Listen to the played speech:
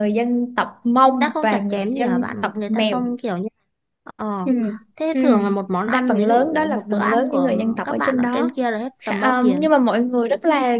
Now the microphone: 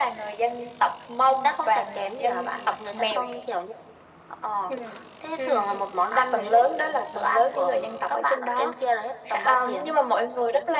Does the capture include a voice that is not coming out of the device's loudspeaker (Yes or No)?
No